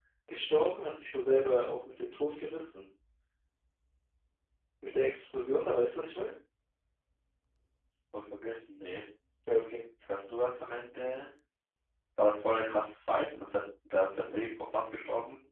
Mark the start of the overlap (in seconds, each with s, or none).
none